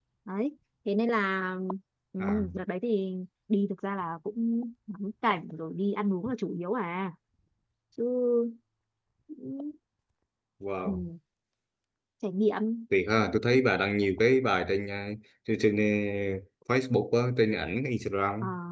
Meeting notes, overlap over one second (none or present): none